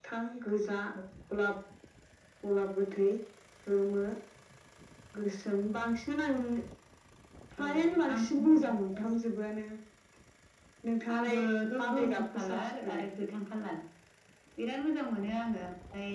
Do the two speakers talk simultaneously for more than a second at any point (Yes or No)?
Yes